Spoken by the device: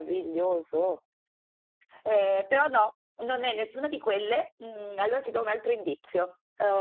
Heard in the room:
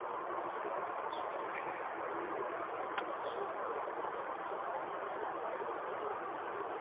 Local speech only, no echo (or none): none